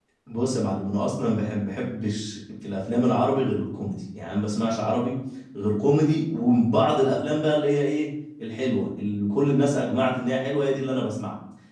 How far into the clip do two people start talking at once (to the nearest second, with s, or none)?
none